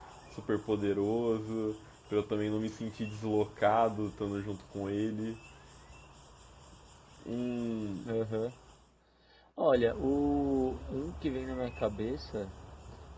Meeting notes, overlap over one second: none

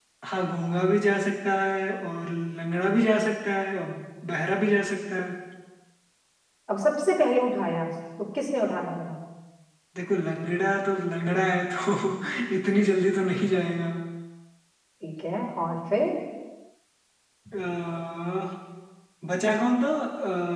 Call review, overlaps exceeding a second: none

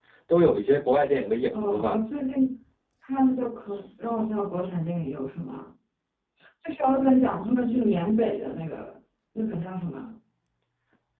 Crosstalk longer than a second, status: none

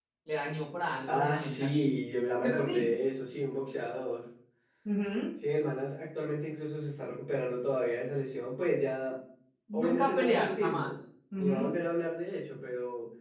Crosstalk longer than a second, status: present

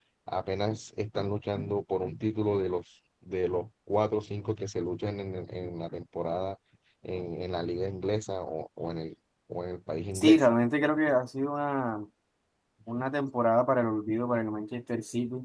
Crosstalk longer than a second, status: none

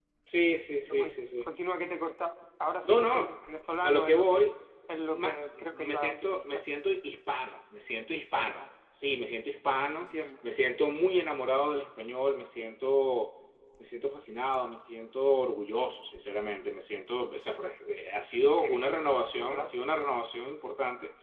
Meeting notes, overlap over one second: present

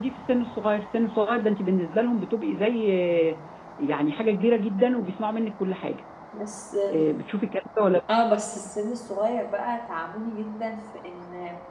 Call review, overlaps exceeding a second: none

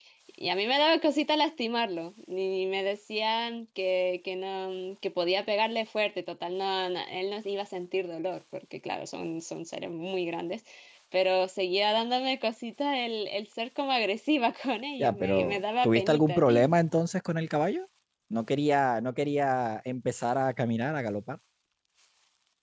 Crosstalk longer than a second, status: present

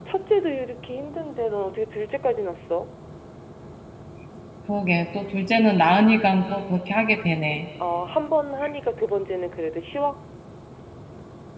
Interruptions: none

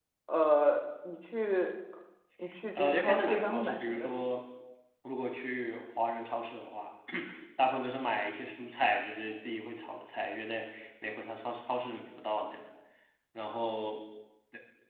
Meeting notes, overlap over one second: present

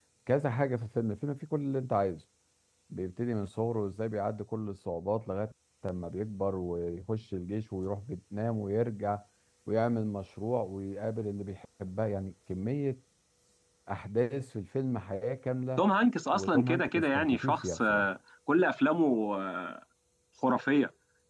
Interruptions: present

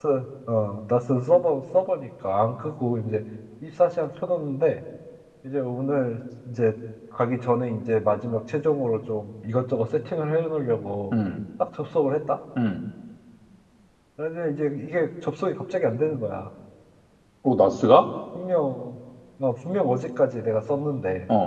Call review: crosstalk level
none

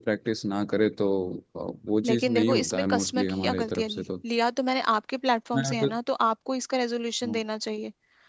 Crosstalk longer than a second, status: present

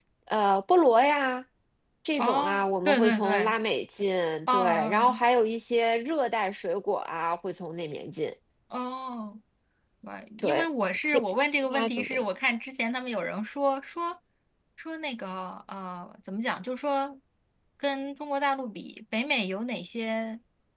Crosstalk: present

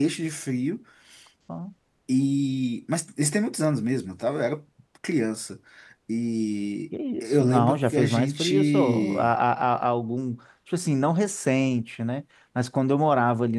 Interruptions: present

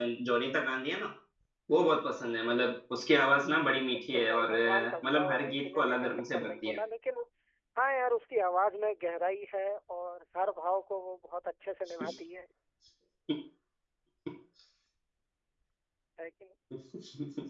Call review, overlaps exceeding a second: present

